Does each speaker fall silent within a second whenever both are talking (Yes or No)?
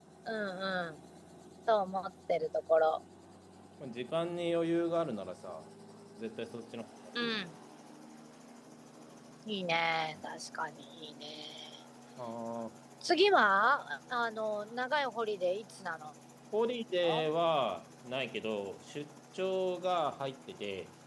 Yes